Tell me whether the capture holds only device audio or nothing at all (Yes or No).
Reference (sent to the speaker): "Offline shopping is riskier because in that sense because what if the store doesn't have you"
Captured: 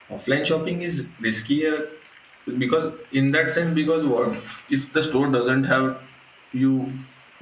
Yes